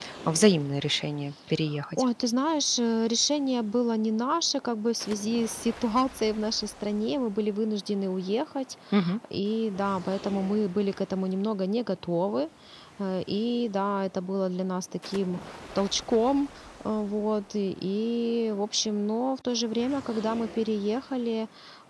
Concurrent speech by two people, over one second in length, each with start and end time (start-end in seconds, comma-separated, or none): none